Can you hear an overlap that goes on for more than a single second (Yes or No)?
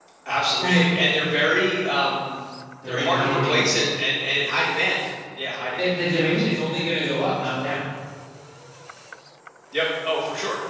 Yes